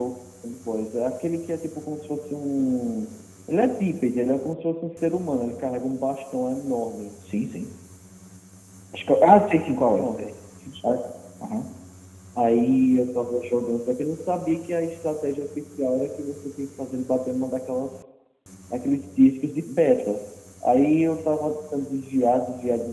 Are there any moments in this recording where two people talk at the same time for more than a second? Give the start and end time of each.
none

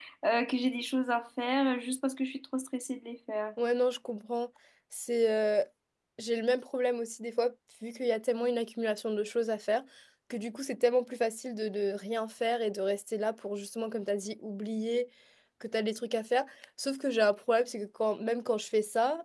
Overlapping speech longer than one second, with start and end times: none

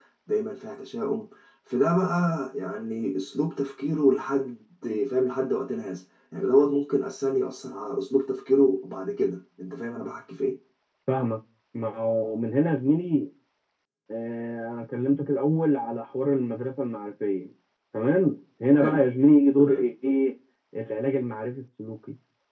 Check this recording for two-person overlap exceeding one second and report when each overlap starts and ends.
none

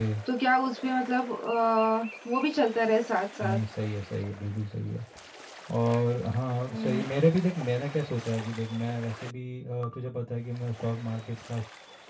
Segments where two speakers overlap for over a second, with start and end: none

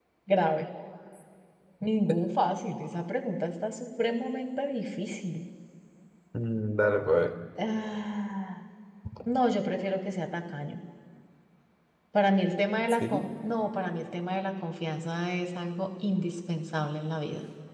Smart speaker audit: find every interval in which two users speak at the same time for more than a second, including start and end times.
none

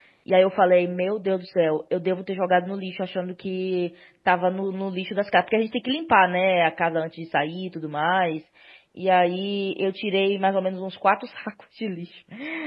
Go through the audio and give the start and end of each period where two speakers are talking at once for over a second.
none

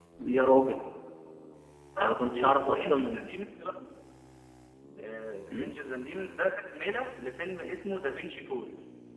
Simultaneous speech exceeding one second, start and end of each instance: 2.0-3.3

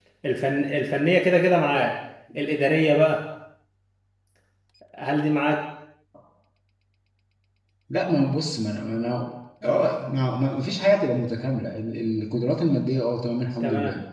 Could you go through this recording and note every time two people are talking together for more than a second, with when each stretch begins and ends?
none

